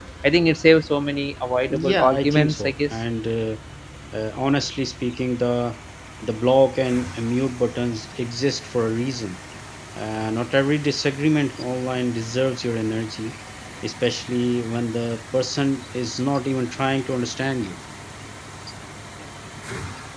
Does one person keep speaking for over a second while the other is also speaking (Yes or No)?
Yes